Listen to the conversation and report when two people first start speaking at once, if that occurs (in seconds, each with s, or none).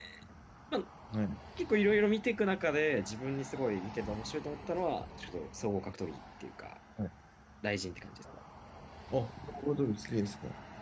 none